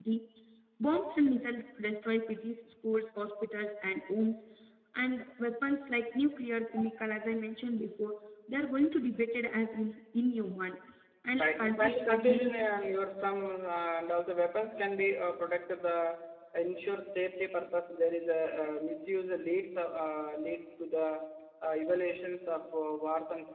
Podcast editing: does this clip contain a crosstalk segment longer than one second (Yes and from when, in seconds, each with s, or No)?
Yes, from 11.4 s